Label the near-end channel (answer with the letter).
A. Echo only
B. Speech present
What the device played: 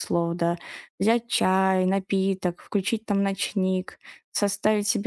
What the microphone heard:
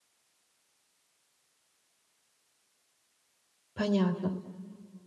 B